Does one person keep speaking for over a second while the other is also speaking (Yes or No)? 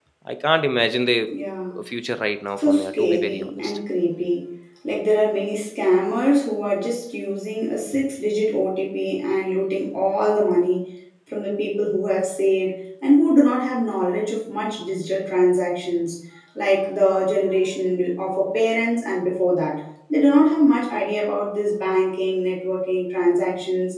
Yes